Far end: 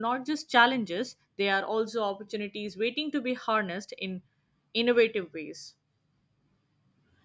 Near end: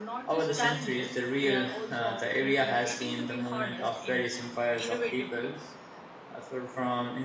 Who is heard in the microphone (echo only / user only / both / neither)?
both